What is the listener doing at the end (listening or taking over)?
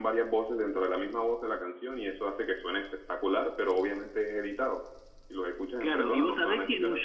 taking over